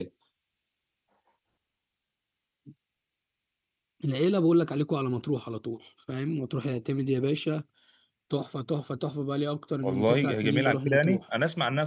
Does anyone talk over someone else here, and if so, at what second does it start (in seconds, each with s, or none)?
9.8 s